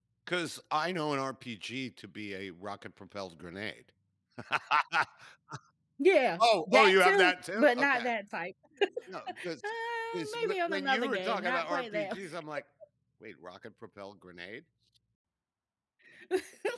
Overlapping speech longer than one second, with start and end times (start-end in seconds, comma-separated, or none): 6.4-8.1, 10.1-12.2